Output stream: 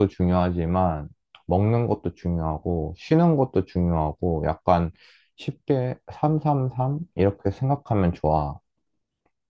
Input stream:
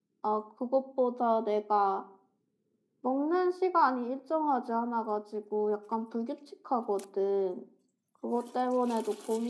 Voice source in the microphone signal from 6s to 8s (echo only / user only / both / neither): user only